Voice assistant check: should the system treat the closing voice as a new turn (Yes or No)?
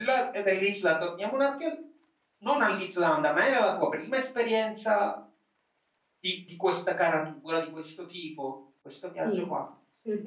Yes